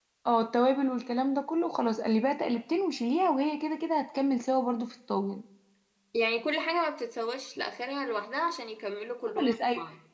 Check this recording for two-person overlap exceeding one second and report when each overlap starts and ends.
none

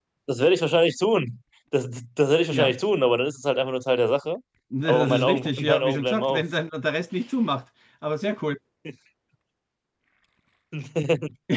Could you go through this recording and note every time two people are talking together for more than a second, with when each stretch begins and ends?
4.8-6.4

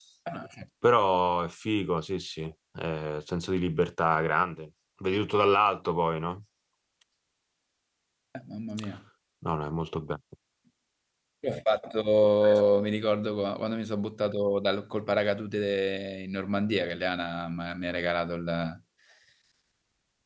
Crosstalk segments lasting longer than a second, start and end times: none

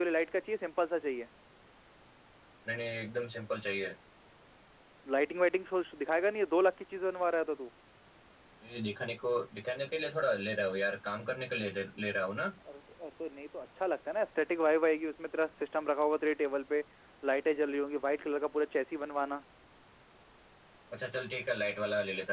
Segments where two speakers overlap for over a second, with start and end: none

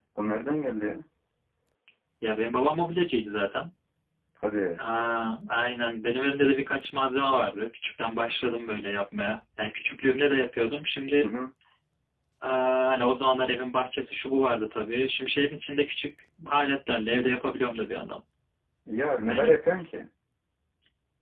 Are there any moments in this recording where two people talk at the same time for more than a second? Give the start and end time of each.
none

